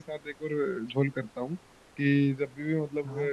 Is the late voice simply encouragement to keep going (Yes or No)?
Yes